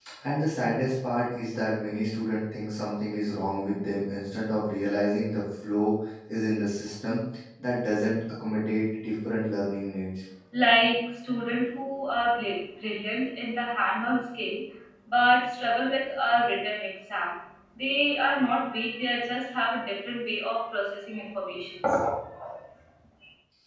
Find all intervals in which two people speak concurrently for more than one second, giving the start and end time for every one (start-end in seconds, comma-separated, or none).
none